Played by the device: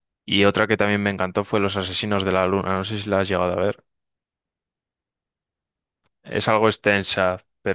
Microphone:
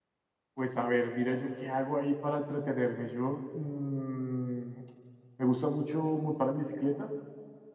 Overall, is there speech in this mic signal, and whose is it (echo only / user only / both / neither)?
user only